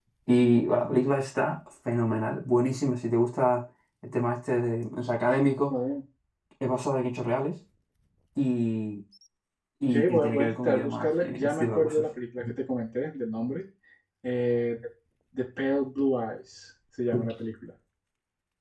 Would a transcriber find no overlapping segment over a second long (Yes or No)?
No